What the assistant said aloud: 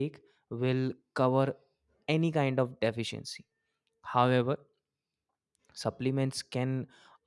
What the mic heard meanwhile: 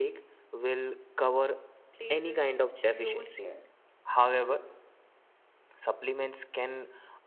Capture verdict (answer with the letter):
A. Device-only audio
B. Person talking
B